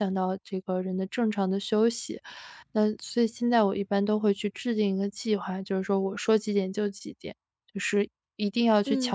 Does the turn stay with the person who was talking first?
No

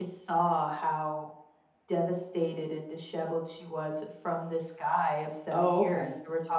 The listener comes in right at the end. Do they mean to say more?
No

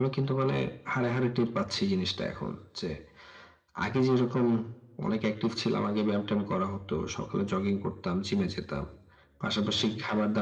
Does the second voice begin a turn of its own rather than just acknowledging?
No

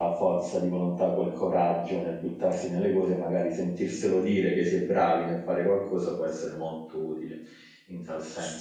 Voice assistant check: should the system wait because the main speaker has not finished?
No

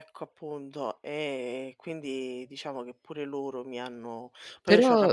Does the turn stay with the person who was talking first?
No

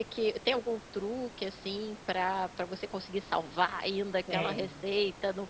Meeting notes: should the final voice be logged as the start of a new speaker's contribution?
No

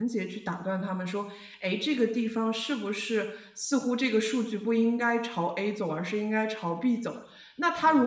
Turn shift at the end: No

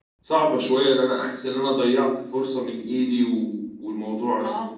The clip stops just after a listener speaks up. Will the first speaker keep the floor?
Yes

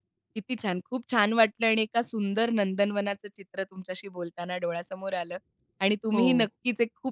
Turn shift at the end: No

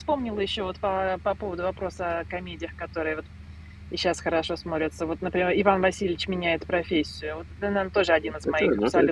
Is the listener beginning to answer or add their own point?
Yes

